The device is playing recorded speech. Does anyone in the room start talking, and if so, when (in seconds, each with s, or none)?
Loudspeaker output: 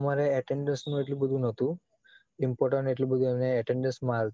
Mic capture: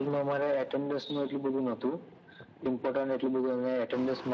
none